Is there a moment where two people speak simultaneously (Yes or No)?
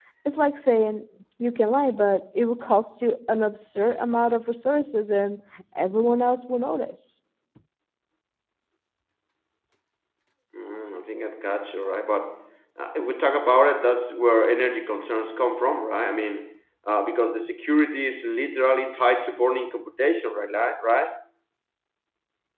No